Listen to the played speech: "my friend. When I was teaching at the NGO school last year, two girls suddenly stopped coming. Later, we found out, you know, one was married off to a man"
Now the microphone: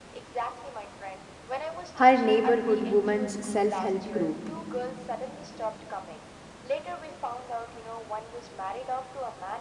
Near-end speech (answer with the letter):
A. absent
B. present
B